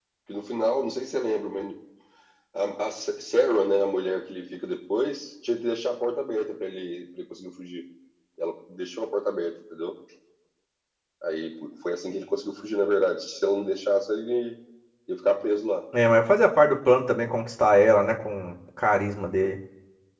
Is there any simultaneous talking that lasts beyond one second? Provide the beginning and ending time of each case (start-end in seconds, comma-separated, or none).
none